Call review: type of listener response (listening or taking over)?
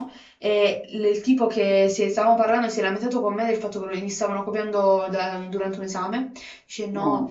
listening